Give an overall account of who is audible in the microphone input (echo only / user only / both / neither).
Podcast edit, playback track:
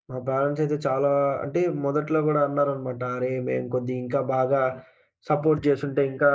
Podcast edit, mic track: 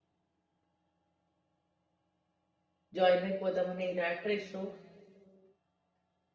user only